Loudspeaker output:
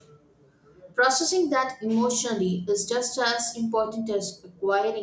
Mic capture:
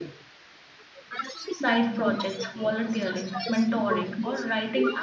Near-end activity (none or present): present